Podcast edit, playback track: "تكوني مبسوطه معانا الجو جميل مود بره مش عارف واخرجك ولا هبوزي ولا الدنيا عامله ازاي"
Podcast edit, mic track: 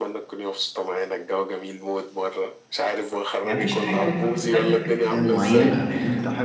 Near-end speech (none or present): present